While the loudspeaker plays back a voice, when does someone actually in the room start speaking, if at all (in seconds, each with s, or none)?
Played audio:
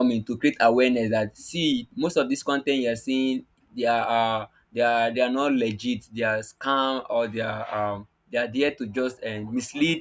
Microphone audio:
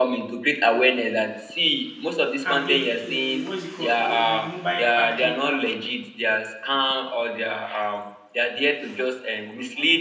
2.4 s